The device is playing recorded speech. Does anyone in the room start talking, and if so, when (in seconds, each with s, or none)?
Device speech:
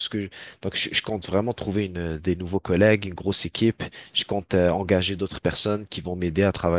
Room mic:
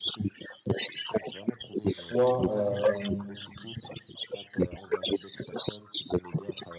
1.8 s